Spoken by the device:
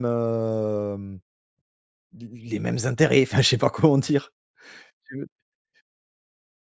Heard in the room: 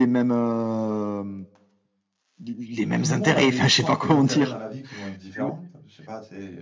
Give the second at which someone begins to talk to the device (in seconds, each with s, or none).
3.0 s